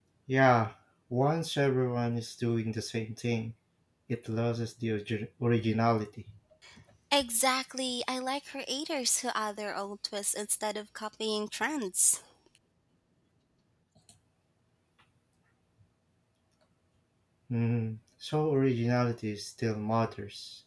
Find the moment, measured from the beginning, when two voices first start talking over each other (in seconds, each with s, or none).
none